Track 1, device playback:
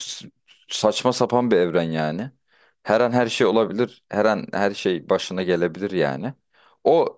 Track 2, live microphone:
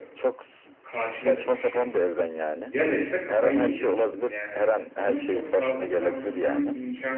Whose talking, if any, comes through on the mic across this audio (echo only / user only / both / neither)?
both